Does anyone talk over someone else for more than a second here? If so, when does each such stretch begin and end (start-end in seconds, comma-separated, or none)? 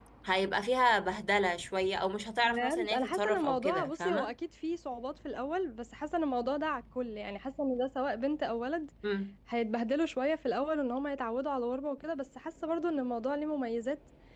2.4-4.3